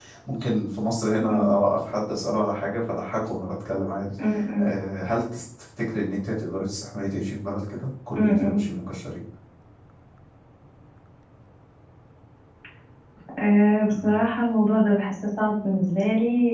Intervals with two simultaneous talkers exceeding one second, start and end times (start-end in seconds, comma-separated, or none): none